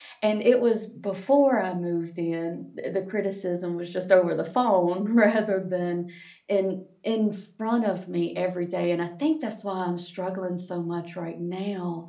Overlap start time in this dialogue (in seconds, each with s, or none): none